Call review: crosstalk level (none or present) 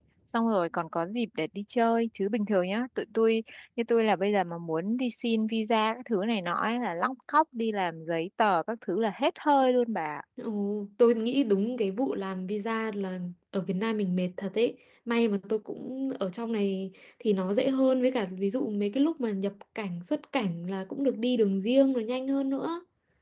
none